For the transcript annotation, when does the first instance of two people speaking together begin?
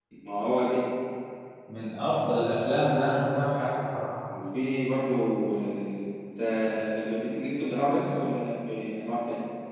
none

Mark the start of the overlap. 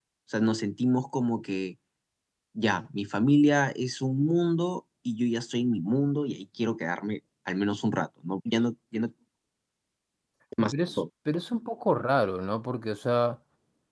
none

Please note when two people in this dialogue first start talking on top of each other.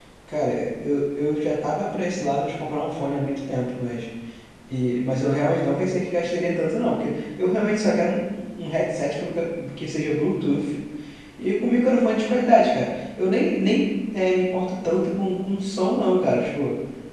none

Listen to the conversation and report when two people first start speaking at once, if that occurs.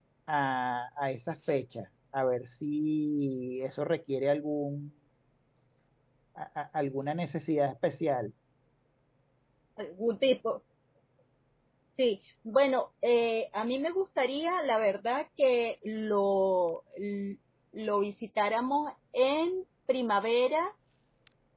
none

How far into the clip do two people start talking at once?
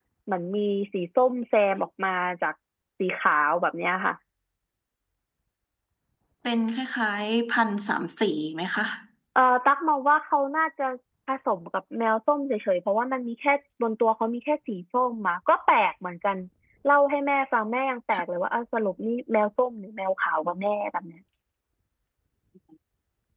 none

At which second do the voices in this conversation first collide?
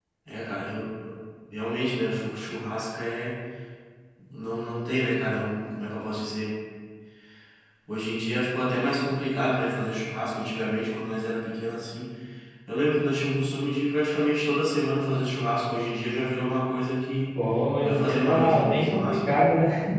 17.8 s

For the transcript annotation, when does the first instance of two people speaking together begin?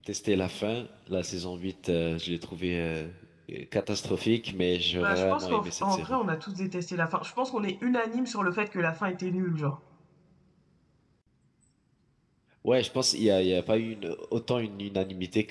4.9 s

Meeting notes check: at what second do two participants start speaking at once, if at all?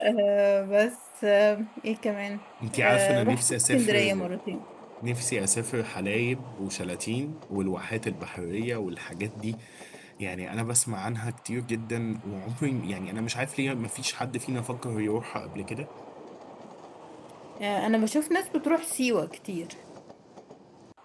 2.6 s

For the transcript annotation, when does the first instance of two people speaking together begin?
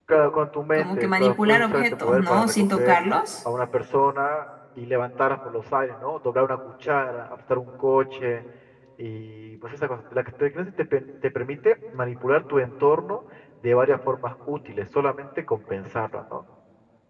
0.7 s

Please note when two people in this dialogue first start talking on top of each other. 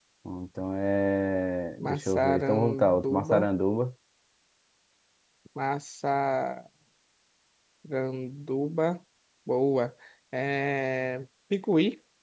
1.8 s

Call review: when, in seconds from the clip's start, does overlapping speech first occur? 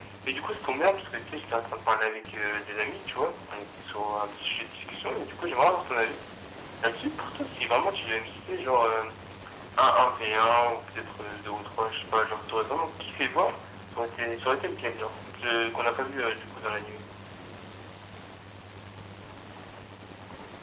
none

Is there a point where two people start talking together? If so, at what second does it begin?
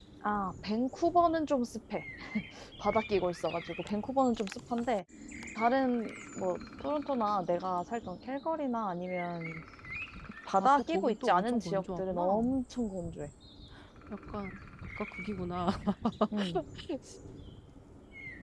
10.6 s

